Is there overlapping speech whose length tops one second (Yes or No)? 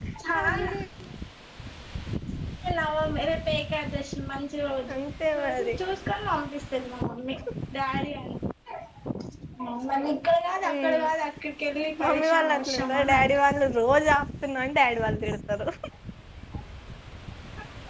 Yes